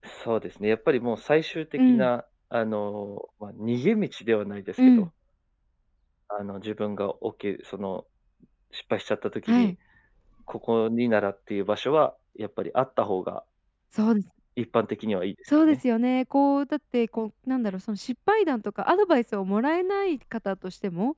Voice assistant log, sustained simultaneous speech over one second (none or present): none